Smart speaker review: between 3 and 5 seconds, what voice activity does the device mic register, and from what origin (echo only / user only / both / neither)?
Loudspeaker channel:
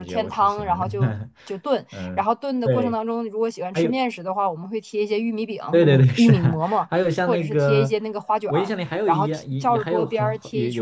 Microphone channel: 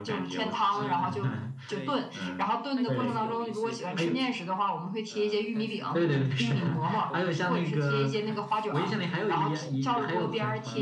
both